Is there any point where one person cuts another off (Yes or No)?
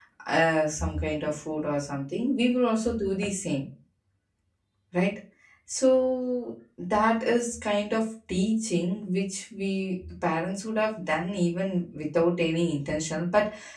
No